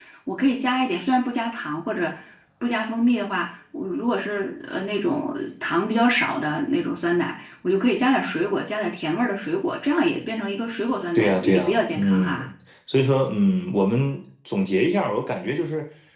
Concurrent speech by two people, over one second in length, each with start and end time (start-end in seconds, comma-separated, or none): 11.2-12.5